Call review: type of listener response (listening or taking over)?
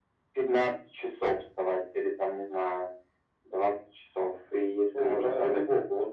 taking over